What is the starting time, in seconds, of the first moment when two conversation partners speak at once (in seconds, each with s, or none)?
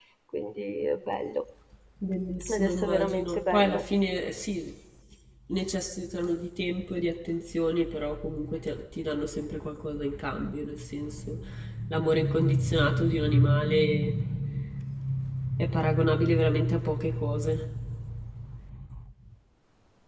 2.5 s